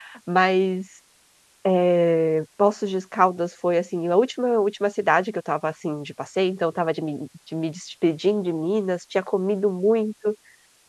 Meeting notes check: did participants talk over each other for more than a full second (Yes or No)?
No